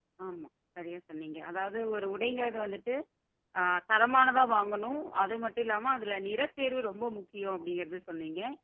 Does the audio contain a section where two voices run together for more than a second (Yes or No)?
No